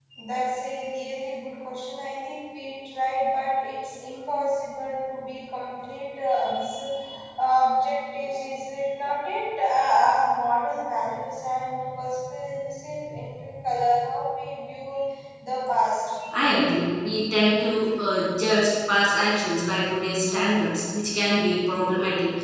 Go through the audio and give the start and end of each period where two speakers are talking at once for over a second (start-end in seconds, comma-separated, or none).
none